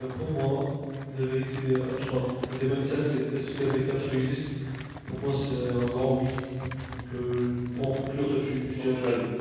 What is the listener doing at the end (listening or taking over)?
taking over